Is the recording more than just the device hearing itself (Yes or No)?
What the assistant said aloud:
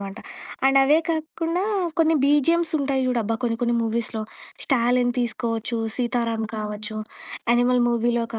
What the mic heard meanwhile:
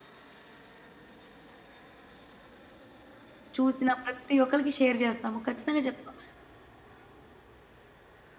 Yes